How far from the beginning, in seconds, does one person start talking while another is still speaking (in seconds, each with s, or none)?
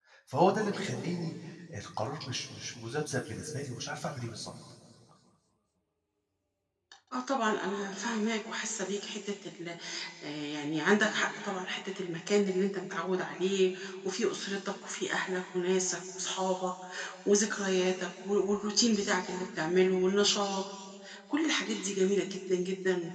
none